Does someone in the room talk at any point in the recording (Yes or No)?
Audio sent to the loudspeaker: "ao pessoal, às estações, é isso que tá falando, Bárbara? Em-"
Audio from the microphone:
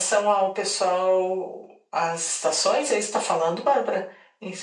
No